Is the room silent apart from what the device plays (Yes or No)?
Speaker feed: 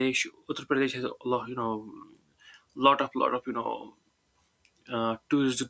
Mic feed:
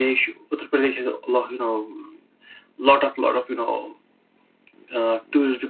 Yes